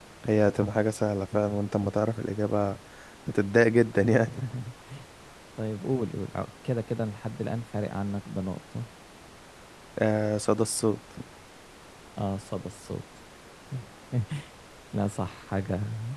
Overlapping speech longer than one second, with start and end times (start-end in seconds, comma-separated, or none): none